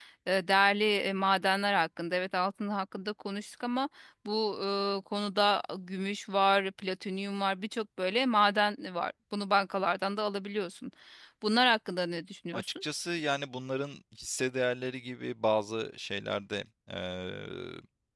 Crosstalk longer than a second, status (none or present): none